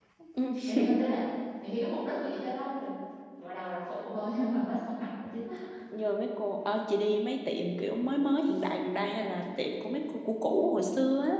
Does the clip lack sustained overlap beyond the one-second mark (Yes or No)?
Yes